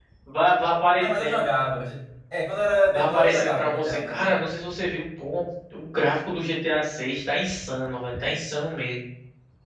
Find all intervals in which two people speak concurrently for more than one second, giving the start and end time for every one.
2.9-4.4

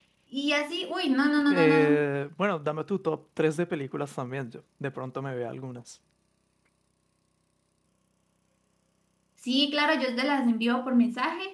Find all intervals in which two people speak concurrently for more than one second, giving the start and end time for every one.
none

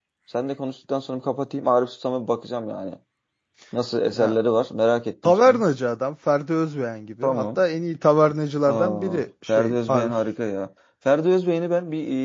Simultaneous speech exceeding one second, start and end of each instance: 8.7-10.1

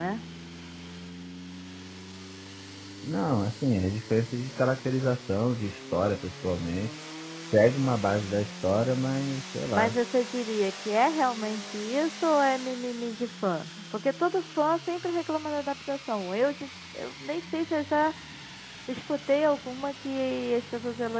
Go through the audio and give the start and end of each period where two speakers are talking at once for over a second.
none

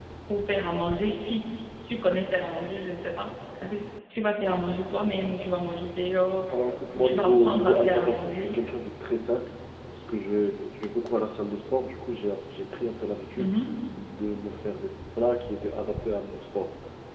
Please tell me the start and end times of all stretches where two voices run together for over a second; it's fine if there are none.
7.0-8.6

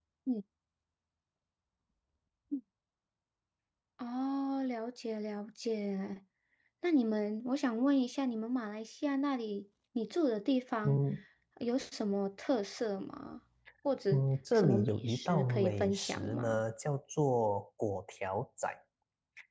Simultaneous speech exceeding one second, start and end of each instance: 14.5-16.6

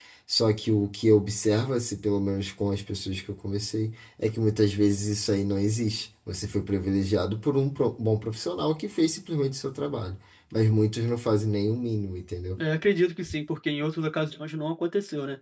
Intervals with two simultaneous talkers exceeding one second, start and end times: none

